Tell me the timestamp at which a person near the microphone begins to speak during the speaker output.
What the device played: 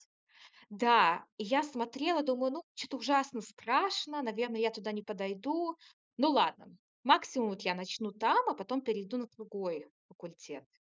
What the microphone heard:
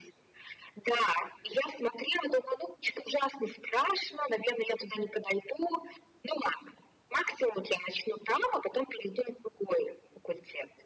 none

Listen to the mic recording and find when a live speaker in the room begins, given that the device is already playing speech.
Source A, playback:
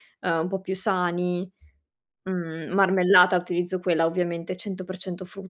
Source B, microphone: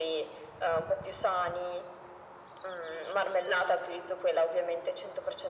none

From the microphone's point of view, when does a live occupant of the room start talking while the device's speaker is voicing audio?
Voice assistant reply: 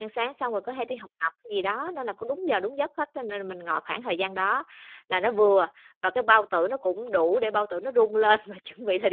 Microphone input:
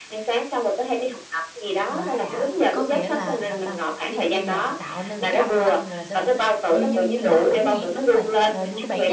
2 s

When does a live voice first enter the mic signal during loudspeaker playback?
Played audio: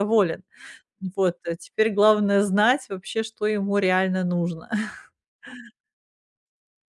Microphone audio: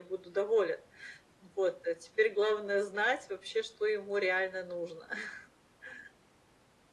none

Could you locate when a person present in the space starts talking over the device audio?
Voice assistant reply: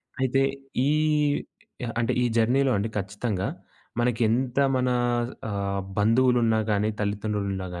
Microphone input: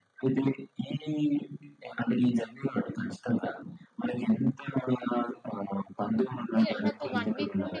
7 s

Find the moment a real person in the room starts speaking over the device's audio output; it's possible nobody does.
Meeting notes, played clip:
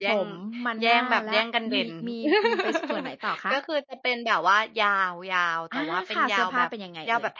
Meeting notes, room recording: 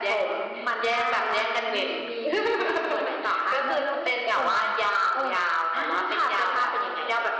4 s

